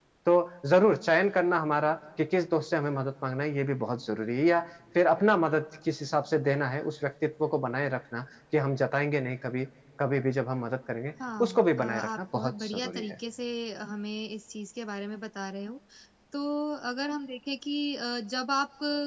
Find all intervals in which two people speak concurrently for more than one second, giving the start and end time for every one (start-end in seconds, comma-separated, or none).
11.4-13.2